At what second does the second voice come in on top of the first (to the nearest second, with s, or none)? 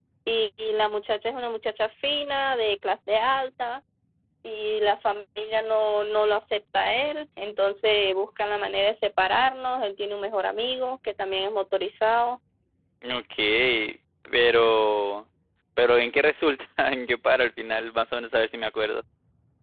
none